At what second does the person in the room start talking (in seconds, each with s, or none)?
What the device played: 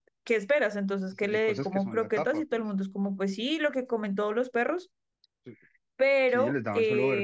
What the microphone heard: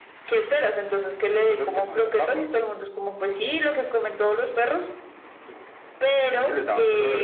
none